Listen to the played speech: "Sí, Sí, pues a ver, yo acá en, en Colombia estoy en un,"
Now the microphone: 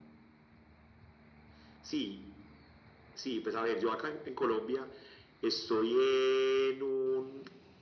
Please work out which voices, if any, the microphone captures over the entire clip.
echo only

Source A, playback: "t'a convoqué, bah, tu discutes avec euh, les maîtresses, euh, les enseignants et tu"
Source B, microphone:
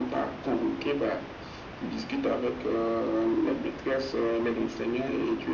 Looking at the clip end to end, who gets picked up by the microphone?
echo only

